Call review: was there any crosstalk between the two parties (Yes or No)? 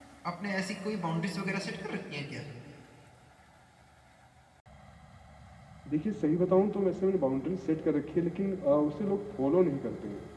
No